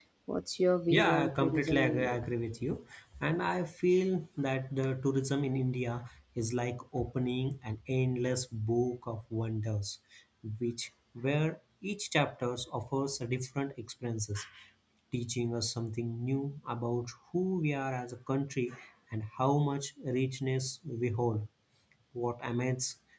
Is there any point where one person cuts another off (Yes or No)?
Yes